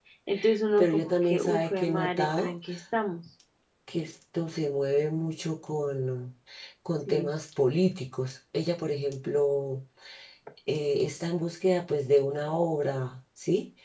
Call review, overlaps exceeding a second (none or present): present